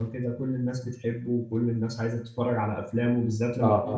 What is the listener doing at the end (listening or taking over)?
taking over